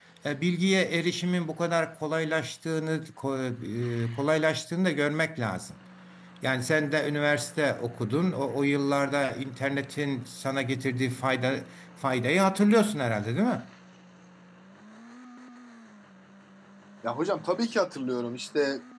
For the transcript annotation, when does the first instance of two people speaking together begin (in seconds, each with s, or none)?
none